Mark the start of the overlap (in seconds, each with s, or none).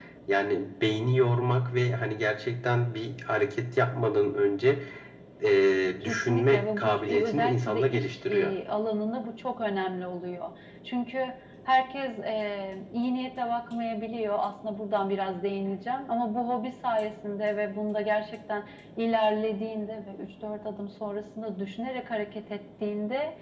6.0 s